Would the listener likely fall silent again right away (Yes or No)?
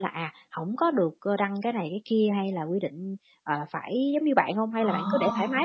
No